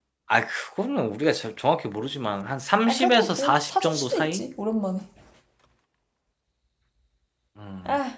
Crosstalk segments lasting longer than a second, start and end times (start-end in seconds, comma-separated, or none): 2.9-4.4